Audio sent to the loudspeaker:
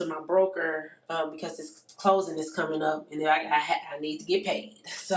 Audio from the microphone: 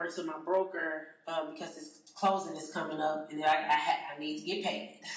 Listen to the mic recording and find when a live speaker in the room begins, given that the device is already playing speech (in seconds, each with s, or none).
none